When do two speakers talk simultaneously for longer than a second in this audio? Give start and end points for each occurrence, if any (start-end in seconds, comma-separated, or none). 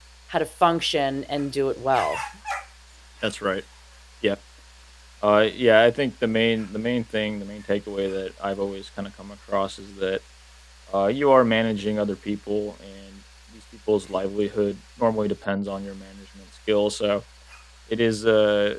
none